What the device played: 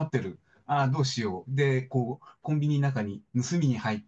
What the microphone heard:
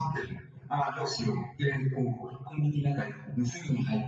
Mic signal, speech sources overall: echo only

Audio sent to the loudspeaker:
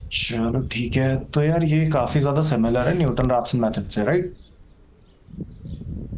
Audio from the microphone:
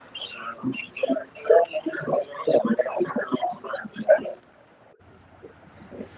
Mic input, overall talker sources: echo only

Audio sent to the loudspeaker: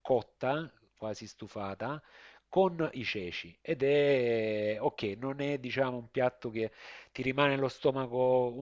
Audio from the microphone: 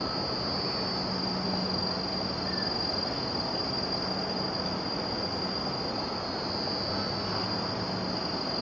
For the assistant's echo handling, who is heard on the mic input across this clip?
neither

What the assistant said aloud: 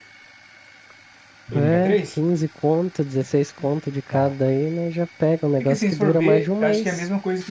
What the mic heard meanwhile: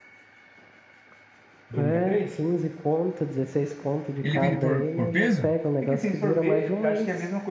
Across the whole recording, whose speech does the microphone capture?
both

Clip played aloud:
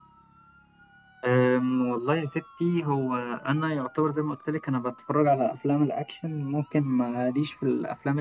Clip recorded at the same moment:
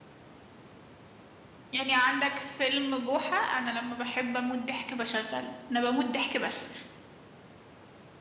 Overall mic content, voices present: user only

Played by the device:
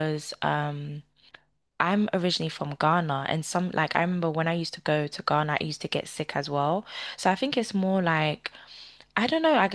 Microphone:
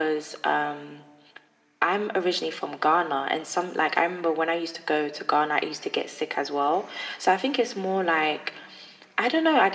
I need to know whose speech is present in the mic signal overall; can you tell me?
echo only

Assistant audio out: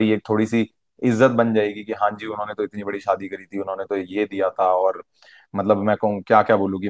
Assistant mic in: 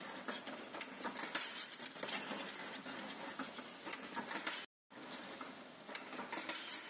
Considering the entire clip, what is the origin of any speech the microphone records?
neither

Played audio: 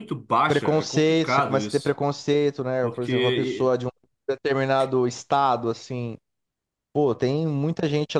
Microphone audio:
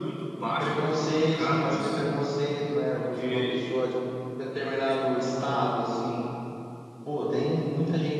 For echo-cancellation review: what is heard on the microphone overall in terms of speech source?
echo only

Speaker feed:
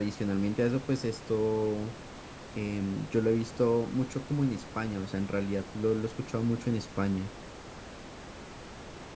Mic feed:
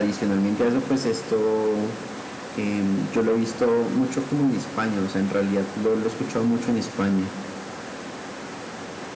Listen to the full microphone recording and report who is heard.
echo only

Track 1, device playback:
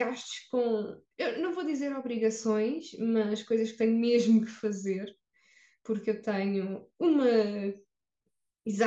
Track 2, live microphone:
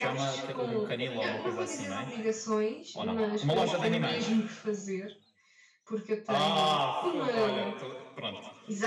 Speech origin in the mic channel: both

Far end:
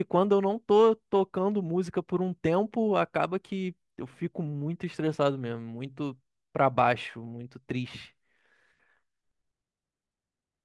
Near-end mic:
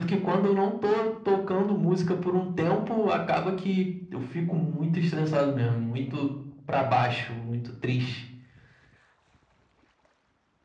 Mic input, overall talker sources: echo only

